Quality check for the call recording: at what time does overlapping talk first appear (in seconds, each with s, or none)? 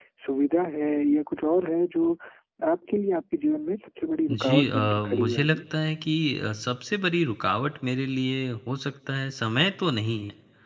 4.3 s